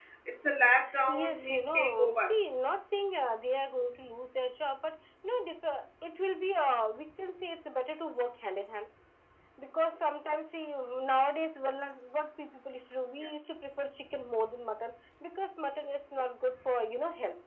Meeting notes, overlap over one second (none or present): present